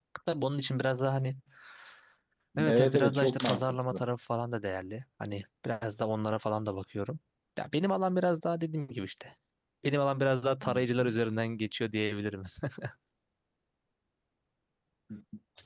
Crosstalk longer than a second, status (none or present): present